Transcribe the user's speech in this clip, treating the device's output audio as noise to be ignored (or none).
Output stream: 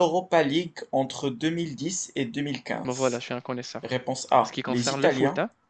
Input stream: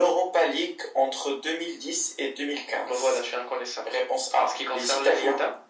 none